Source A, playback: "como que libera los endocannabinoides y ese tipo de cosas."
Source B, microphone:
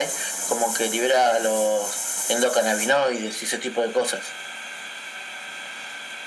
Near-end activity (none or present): none